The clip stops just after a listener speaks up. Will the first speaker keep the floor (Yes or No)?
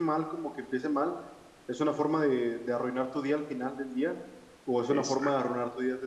Yes